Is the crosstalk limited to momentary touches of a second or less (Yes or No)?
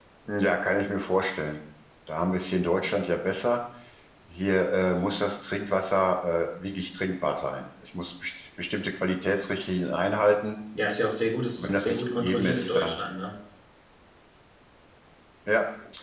No